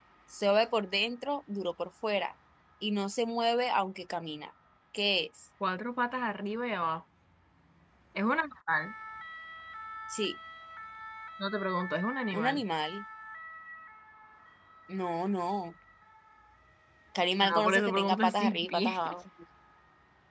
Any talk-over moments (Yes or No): Yes